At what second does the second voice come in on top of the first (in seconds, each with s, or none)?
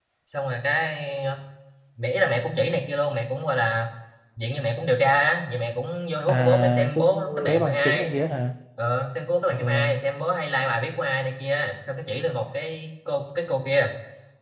6.3 s